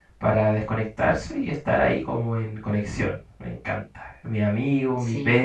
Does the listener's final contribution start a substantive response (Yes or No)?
No